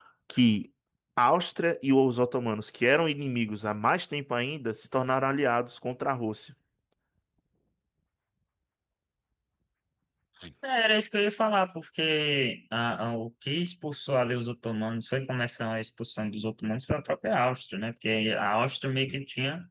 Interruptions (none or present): none